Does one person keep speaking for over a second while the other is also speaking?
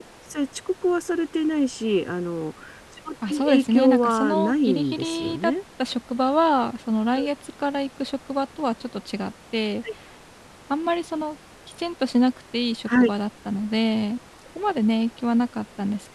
Yes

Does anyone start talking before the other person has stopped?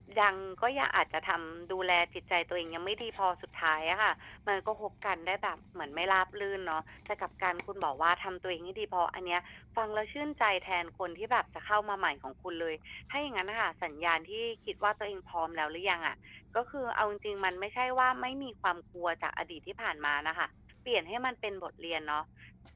No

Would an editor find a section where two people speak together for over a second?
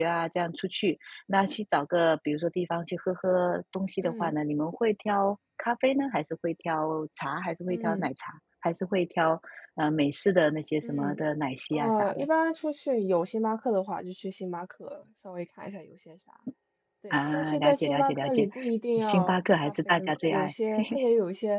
Yes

